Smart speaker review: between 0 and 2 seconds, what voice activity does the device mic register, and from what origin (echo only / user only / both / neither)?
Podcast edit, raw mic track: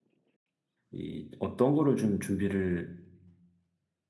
user only